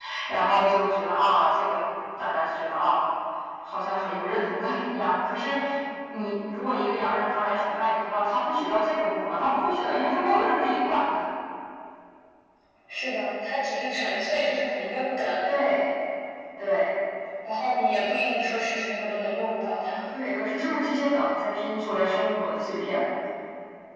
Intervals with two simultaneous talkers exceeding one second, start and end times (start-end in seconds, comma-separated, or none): none